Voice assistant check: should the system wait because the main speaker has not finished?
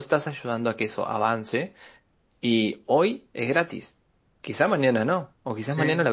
Yes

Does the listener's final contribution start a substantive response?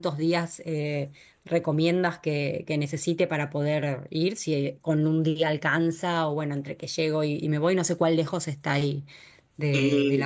Yes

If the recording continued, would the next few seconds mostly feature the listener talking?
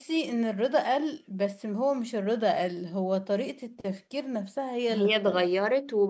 Yes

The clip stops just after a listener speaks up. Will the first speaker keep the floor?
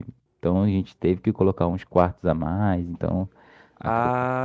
No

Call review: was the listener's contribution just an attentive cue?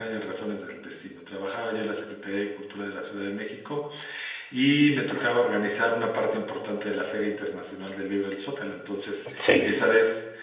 Yes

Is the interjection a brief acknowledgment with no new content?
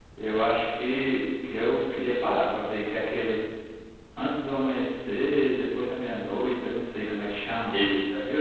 No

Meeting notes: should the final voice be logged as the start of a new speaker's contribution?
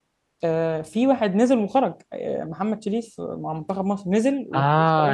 Yes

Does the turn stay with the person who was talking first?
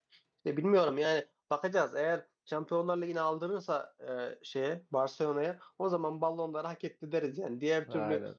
Yes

